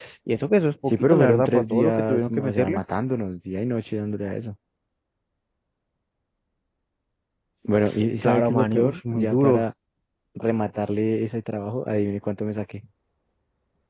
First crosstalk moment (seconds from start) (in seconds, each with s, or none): 0.9 s